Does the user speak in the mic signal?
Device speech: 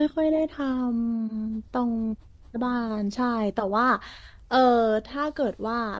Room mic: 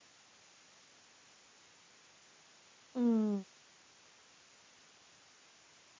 Yes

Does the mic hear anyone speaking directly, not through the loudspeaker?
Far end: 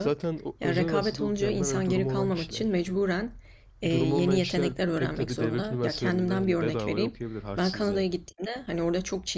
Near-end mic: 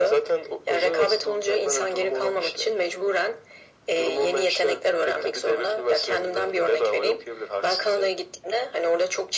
No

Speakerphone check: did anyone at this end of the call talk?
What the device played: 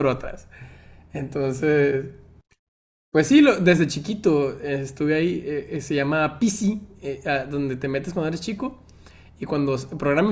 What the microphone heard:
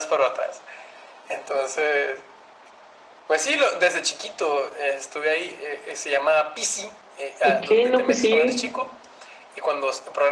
Yes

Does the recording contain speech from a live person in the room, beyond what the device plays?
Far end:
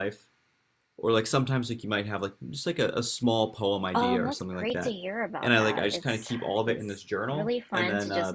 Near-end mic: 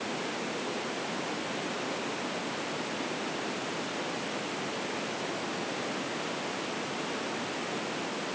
No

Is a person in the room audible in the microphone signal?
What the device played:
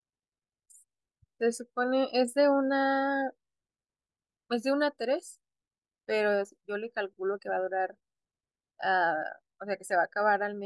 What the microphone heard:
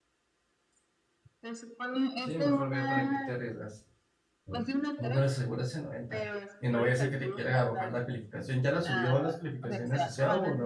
Yes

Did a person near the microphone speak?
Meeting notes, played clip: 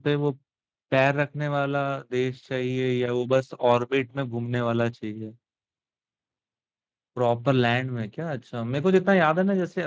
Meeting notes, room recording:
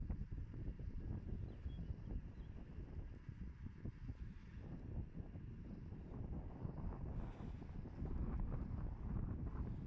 No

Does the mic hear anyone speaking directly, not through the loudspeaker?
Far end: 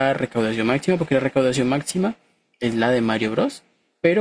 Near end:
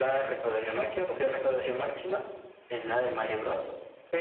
No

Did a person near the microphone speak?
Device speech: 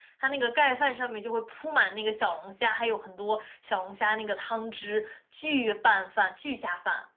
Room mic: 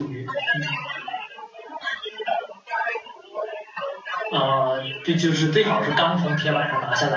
Yes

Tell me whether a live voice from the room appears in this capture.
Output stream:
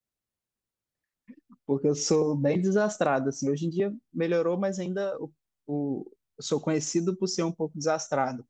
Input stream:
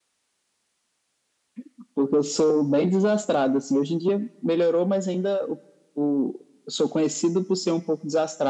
No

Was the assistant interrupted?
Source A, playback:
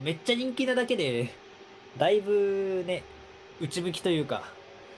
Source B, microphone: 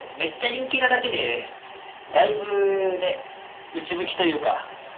No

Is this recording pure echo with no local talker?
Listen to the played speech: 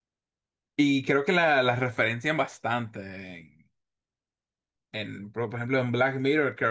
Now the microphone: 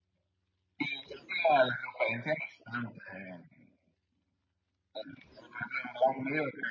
Yes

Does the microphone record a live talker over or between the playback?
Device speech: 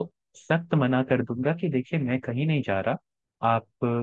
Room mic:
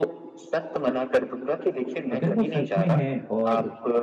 Yes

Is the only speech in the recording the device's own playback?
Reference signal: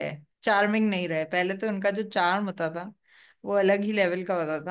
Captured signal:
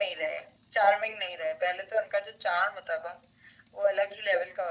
Yes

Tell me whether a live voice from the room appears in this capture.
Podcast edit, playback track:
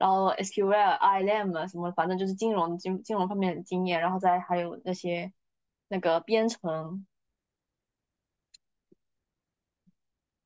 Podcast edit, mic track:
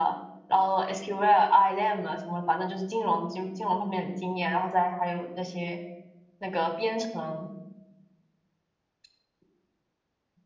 No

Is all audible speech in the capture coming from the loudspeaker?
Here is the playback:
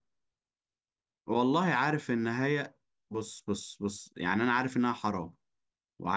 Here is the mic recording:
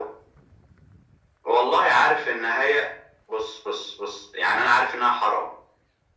Yes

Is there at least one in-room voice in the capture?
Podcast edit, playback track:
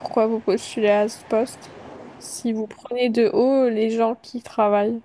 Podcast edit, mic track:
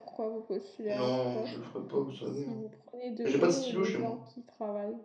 Yes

